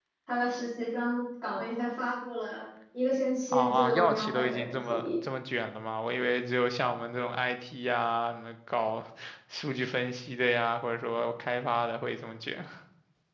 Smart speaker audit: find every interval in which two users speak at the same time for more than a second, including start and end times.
3.5-5.1

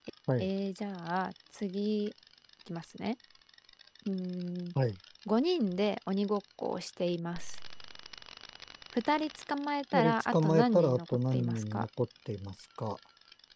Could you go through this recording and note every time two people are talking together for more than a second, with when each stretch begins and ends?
9.9-11.8

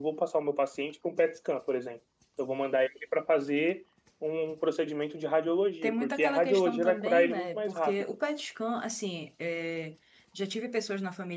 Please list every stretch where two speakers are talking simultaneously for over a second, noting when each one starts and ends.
5.8-7.9

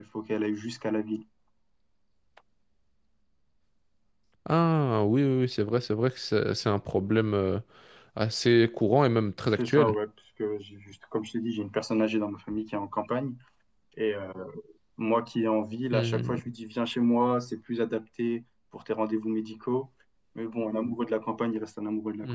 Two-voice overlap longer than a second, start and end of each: none

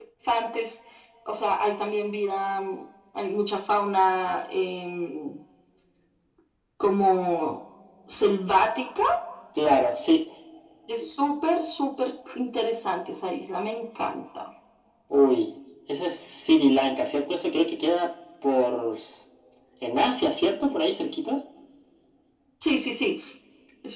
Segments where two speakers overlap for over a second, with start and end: none

